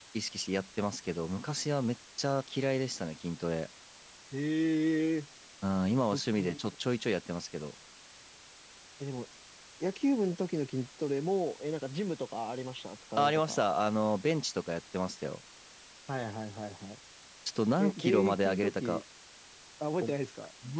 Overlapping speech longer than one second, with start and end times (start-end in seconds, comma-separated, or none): 17.8-19.0